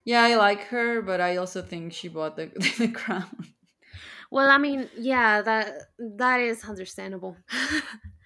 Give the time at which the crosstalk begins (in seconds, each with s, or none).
none